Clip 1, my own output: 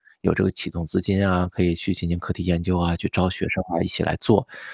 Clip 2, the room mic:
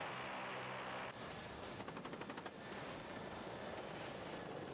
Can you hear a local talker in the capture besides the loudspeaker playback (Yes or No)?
No